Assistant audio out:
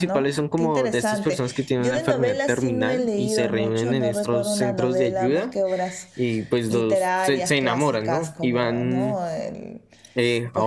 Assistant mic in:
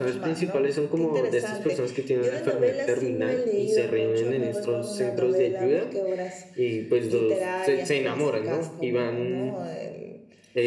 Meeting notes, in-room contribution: none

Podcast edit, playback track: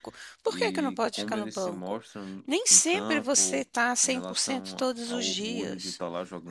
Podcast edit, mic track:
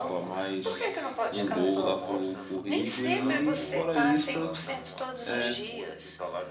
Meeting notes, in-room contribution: present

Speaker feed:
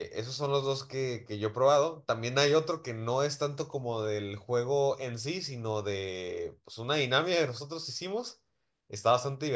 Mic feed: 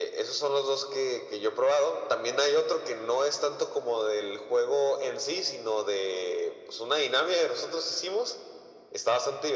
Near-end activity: none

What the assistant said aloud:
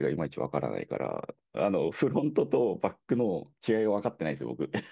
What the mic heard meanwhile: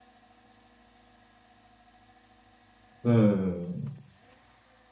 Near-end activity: present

